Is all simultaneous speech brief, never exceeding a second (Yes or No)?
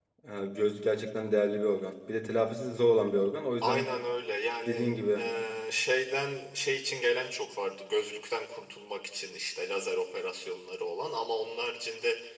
Yes